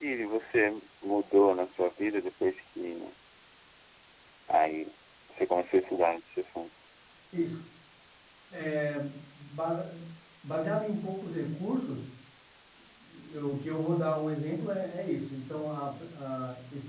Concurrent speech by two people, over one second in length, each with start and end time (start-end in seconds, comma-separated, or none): none